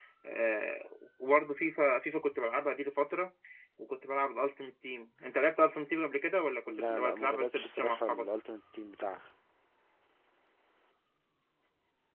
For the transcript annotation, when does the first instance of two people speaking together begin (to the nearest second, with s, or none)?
7 s